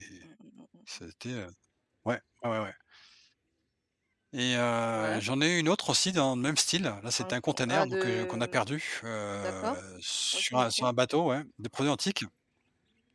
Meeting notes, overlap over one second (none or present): present